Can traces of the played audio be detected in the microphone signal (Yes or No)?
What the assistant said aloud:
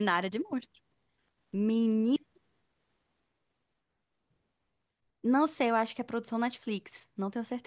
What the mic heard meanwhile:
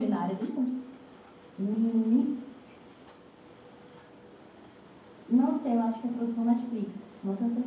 Yes